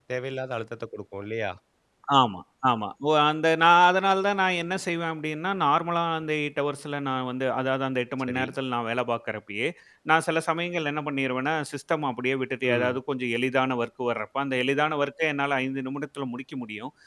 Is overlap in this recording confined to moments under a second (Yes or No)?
Yes